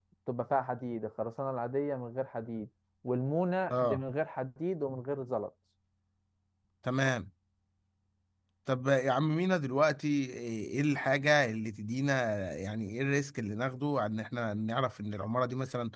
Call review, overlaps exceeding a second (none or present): none